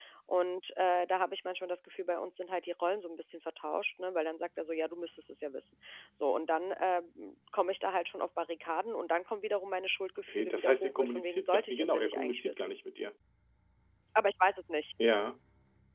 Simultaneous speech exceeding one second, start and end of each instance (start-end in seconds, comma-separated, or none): 10.3-12.7